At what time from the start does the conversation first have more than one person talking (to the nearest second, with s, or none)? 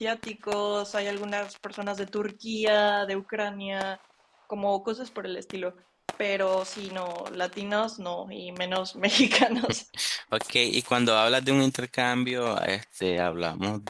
none